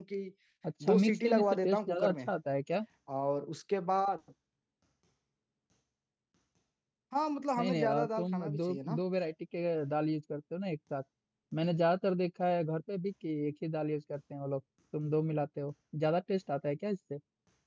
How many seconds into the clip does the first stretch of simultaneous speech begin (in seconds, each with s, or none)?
0.8 s